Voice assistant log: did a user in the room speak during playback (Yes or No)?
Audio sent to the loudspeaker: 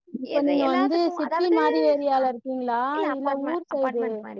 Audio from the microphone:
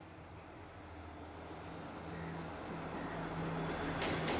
No